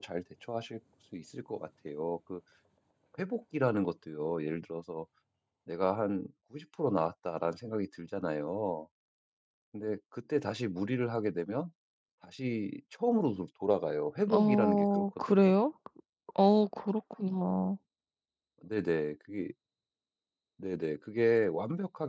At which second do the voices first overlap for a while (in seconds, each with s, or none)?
14.2 s